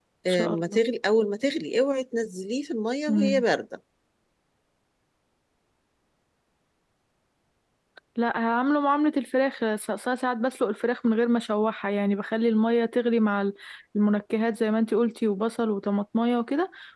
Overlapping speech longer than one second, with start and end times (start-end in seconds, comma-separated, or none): none